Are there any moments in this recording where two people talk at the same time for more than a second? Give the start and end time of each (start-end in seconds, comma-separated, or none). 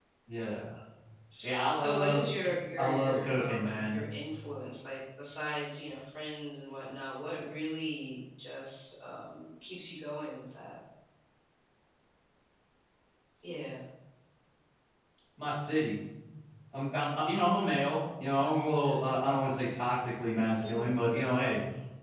1.7-4.0